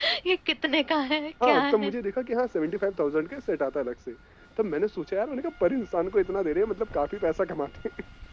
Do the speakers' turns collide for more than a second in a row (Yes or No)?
No